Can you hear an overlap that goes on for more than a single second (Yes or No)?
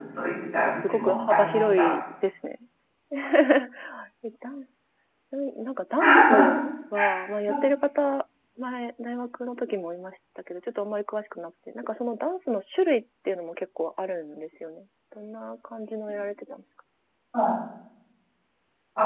Yes